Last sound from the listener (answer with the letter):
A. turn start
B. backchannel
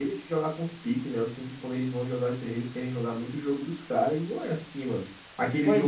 B